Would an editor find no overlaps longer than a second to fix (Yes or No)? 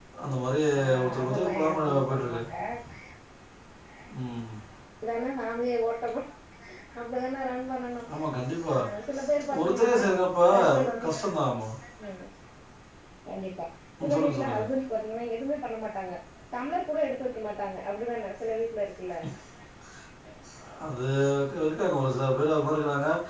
No